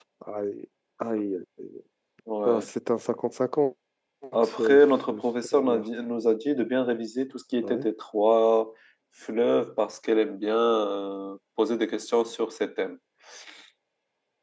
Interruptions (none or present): present